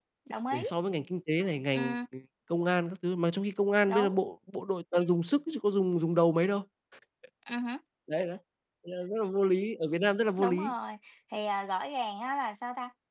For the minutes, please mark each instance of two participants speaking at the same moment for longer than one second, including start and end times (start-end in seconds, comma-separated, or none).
none